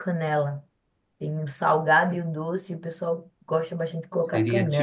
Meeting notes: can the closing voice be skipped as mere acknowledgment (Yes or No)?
No